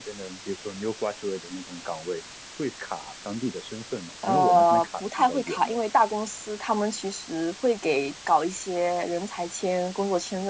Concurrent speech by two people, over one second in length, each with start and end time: 4.2-5.8

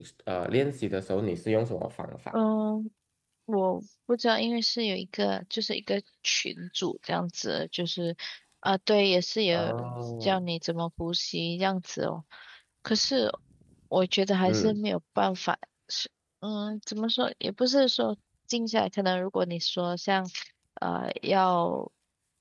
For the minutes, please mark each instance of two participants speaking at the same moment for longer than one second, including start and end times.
none

